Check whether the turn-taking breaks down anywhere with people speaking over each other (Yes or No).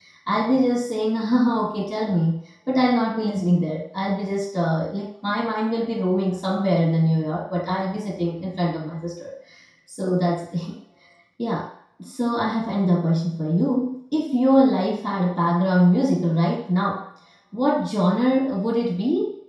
No